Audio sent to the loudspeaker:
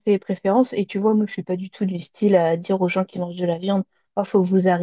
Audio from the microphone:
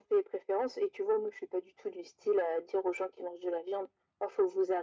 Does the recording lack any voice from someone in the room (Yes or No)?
Yes